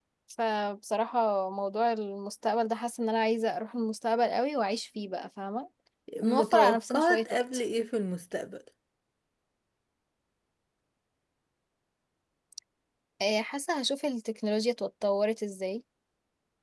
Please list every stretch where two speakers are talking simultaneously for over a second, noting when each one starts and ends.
6.2-7.6

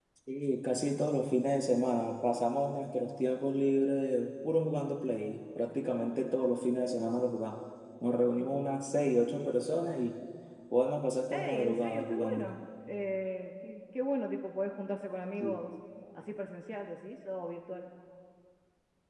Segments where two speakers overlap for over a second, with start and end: 11.3-12.6

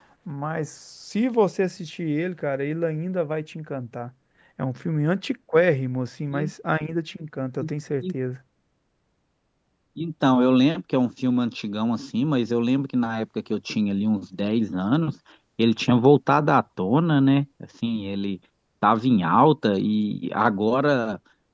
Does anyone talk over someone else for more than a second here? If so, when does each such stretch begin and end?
none

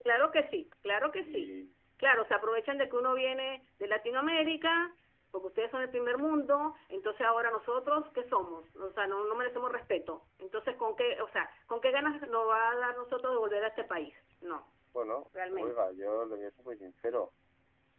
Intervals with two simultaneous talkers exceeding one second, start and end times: none

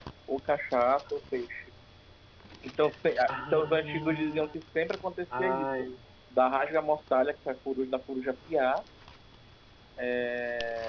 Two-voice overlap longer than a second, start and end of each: 3.3-4.5

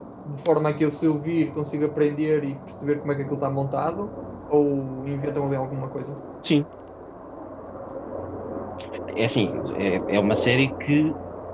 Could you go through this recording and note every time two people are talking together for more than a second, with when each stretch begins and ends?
none

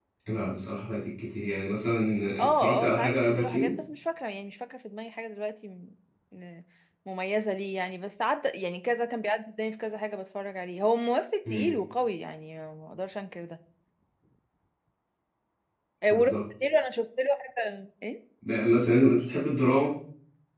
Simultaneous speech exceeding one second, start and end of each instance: 2.4-3.7

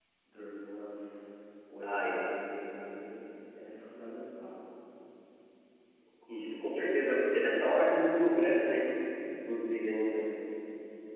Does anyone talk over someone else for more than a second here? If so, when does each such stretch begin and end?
none

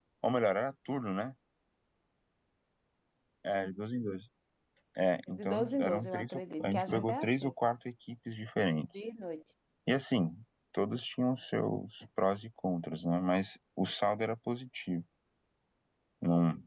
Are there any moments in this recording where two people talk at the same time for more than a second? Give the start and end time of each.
5.4-7.5

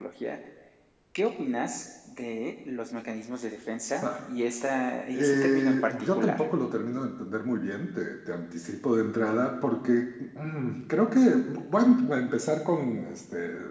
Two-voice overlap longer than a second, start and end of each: 5.1-6.5

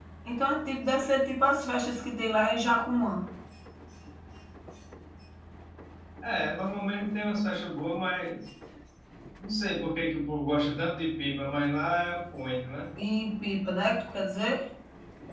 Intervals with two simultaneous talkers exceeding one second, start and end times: none

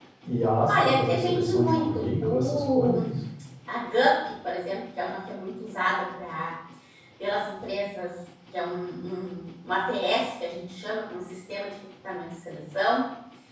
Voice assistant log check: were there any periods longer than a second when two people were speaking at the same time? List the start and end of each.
0.7-2.9

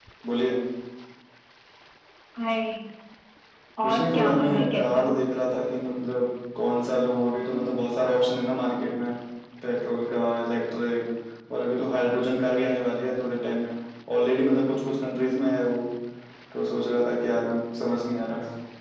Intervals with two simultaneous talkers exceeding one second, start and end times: 3.8-5.1

